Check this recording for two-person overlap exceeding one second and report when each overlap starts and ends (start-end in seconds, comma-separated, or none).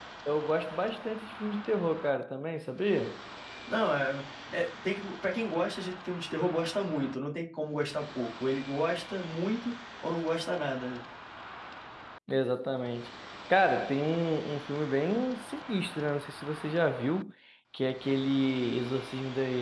none